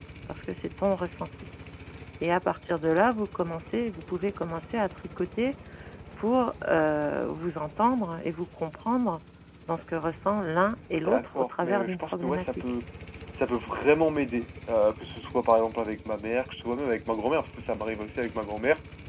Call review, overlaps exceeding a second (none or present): present